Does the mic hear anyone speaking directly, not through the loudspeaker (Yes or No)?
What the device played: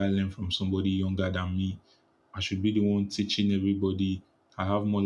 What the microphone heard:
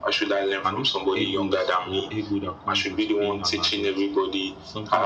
Yes